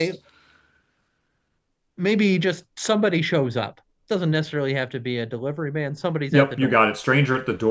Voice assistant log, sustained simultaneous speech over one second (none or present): none